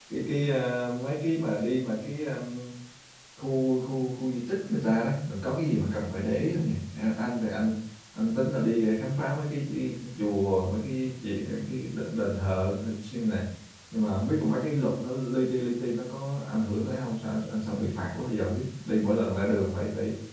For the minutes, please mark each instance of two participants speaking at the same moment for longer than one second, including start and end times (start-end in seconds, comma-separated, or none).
none